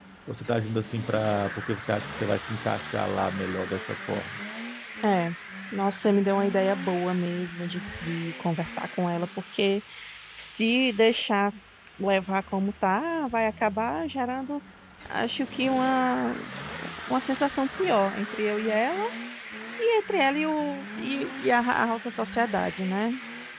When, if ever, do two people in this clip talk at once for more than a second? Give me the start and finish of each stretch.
none

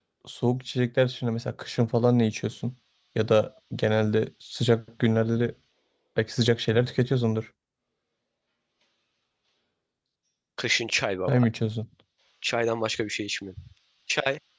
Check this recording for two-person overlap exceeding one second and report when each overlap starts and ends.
none

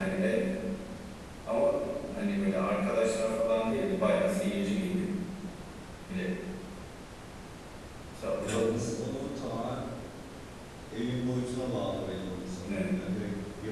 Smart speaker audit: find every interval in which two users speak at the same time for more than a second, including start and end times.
none

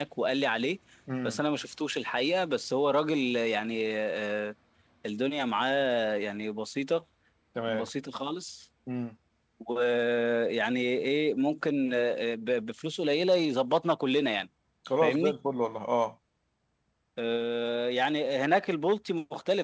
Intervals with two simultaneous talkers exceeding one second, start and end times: none

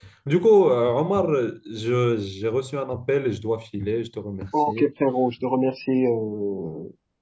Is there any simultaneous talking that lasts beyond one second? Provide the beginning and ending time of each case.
none

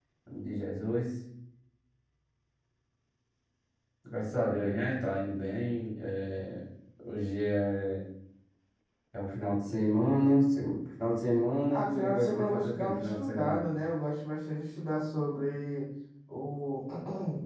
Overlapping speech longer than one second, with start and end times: 11.7-13.6

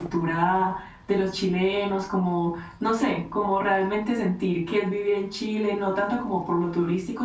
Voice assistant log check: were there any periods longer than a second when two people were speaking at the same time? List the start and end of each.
none

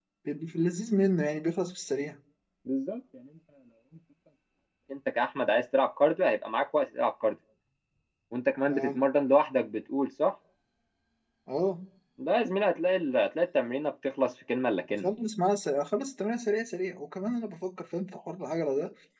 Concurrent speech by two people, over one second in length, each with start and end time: none

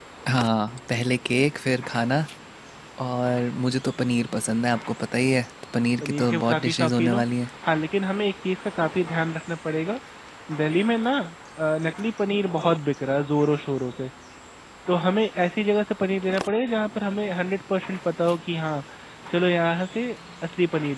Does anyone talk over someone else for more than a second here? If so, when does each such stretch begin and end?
6.0-7.2

